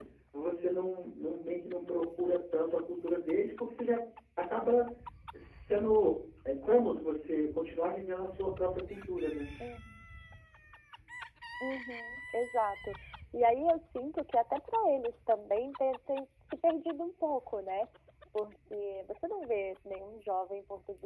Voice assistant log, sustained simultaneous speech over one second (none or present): none